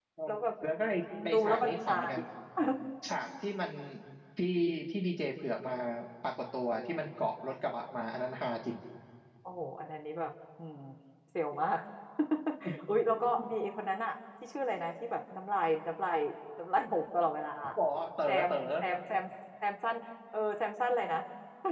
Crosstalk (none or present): present